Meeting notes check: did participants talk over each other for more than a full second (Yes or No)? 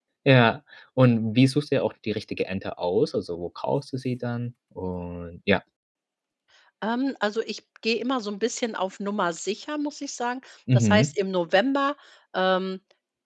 No